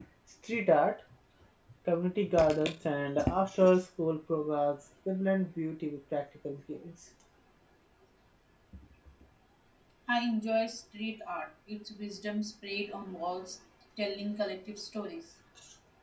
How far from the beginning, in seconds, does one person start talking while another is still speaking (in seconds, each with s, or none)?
none